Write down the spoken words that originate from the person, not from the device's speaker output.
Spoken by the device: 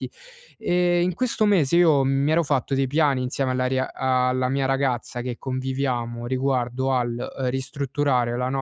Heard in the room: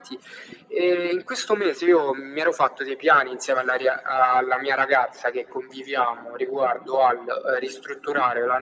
none

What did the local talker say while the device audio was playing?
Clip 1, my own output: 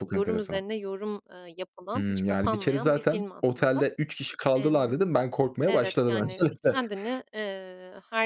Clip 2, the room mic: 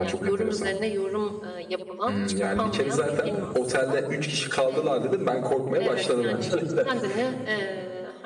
none

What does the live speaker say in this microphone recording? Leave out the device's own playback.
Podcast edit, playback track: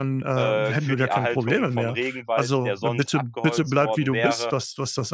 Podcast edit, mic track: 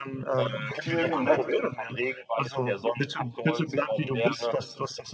Vielen, vielen Dank.

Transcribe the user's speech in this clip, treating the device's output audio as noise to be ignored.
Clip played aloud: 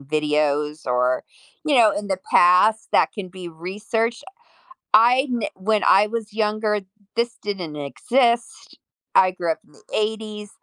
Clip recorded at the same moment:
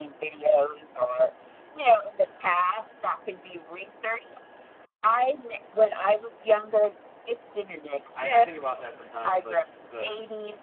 Uh, I I think about that sometimes, like, the

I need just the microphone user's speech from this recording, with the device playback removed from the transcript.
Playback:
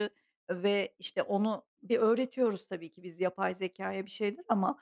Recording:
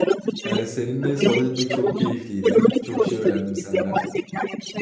Eee, seninle sohbet etmek çok keyifliydi. Çok şey öğrendim senden.

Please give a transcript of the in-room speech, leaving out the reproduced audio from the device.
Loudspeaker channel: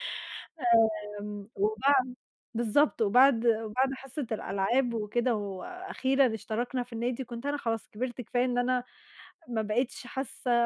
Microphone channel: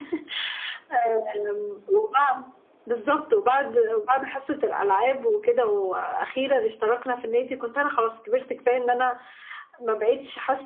none

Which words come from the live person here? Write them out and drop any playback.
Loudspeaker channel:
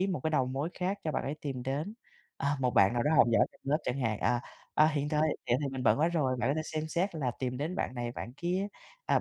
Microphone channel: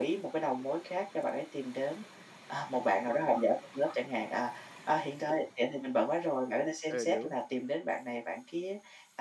ừ, đúng.

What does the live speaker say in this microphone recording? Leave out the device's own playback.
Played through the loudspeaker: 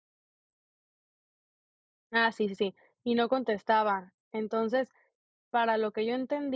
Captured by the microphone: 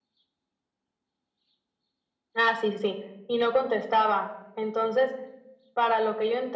none

